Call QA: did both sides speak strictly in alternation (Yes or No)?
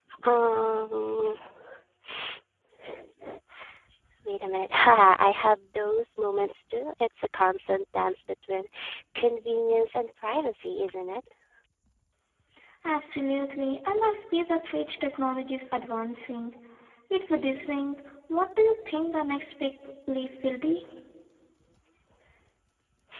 Yes